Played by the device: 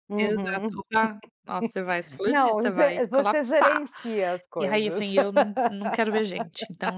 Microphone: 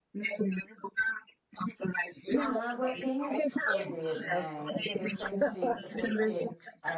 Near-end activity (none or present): present